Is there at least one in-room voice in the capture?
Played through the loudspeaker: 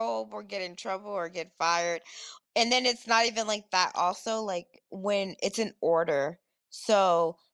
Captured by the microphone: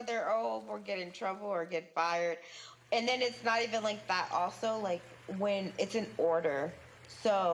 No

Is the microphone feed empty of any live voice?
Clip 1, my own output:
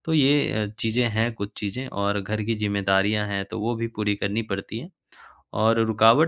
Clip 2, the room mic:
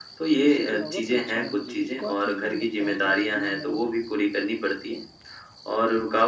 No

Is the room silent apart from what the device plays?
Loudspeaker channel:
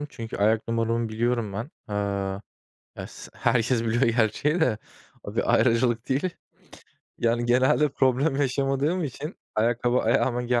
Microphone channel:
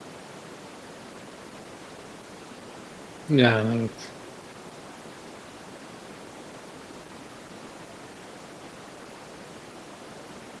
No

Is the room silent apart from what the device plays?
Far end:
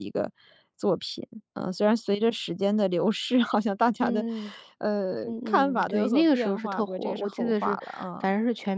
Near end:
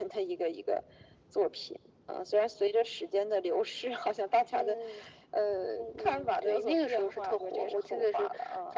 Yes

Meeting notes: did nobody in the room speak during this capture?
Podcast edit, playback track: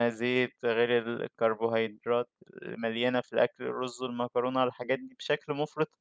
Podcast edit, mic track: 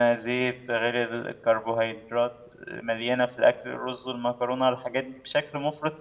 Yes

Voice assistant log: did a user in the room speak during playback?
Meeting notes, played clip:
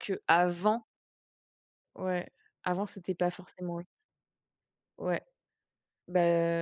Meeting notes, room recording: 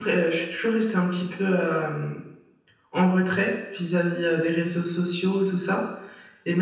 Yes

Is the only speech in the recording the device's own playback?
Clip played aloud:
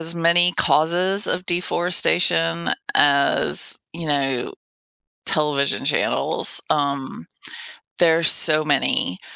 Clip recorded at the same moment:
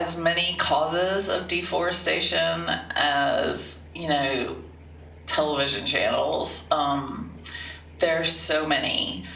Yes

